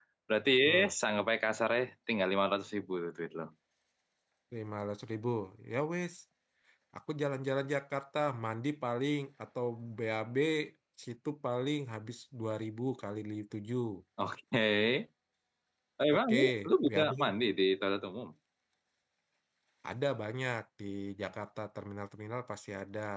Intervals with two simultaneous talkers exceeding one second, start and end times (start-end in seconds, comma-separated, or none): 16.1-17.3